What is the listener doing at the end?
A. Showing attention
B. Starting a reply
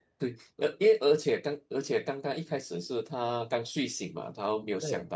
A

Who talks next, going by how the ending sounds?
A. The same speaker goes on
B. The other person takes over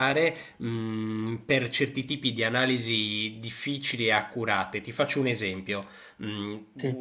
A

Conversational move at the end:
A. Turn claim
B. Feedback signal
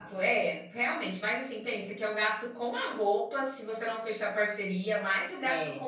B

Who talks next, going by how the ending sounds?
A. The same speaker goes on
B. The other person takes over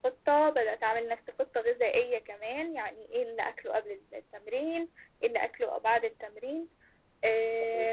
A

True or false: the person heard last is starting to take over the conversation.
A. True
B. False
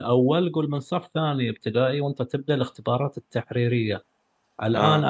B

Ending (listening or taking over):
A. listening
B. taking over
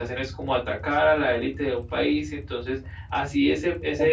B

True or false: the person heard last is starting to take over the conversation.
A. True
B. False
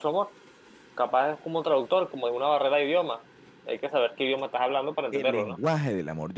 A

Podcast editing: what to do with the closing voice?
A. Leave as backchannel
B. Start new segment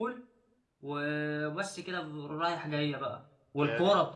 A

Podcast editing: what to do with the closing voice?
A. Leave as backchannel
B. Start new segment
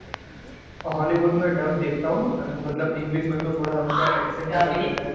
B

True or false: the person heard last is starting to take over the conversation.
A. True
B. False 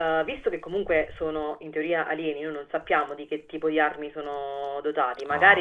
B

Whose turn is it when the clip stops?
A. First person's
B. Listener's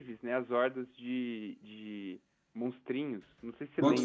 B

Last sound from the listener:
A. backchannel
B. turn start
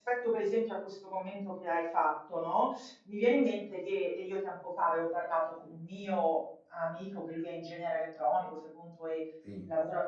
A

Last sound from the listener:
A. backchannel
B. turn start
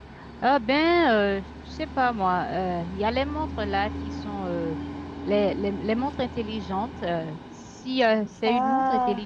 A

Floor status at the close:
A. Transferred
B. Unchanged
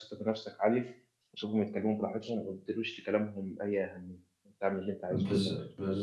A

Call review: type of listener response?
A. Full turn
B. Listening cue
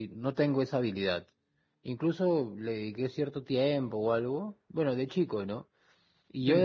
B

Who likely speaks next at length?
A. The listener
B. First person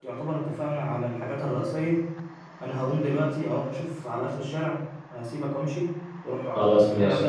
B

